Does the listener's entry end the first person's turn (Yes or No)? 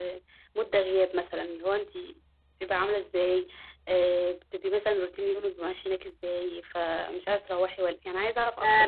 Yes